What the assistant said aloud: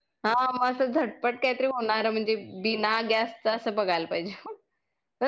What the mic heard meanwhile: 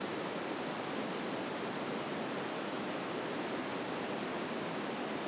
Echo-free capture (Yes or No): Yes